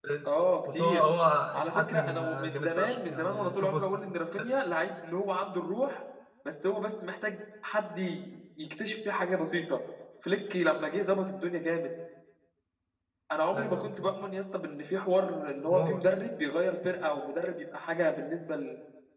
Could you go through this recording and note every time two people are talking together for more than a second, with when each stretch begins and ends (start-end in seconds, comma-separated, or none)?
1.6-3.8